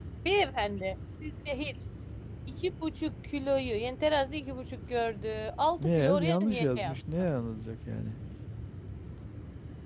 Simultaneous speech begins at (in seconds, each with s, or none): 5.8 s